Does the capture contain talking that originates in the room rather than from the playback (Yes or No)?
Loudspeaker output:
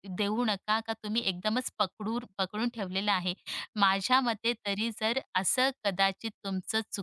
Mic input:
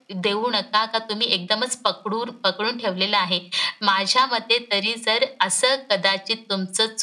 No